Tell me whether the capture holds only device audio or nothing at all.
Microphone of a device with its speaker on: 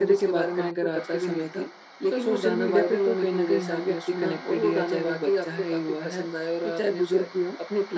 No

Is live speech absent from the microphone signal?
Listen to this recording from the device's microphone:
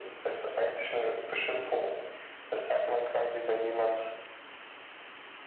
Yes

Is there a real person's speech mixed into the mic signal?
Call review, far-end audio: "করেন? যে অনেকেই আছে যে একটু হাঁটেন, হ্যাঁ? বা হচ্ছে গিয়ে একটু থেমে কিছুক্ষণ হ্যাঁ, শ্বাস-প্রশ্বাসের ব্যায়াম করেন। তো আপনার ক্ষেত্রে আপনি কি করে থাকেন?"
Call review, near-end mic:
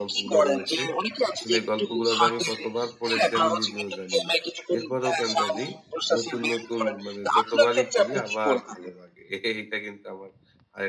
Yes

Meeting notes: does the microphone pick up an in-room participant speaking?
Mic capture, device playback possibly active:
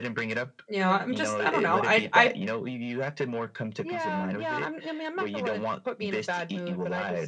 Yes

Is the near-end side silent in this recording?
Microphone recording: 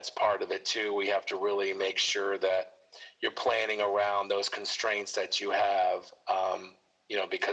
Yes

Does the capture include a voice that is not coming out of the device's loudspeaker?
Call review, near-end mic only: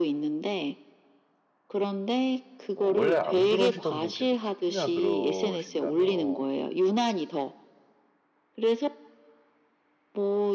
Yes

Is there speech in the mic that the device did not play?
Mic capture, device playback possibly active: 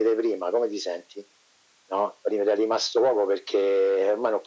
No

